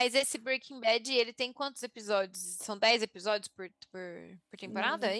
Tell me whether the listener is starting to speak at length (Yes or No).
Yes